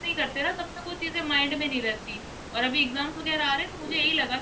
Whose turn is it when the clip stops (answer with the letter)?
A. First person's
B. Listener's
A